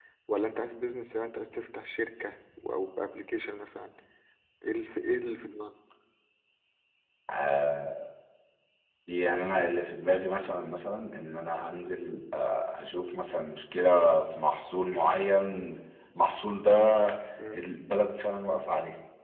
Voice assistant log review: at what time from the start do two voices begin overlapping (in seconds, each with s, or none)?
none